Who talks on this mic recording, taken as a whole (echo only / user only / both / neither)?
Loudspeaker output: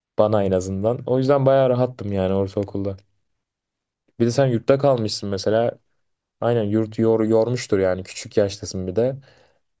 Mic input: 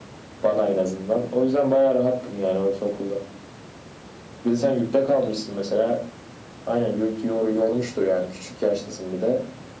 echo only